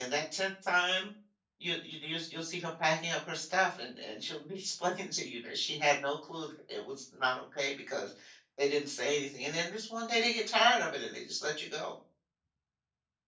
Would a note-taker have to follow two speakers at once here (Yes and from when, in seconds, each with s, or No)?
No